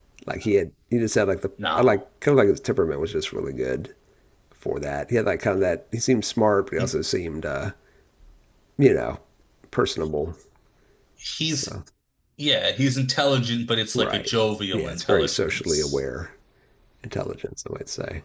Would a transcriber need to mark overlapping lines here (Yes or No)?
Yes